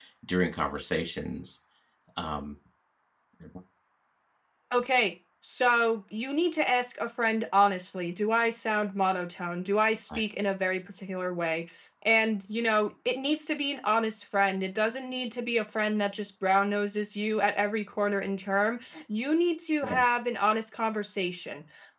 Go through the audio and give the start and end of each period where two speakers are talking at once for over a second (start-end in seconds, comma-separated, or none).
none